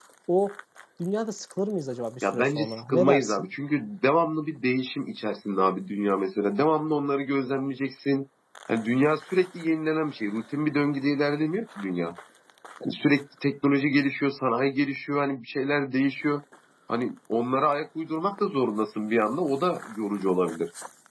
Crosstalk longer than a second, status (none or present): present